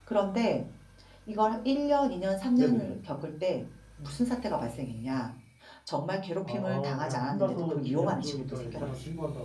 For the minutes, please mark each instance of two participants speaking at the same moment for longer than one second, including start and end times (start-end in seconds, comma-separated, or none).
6.5-8.9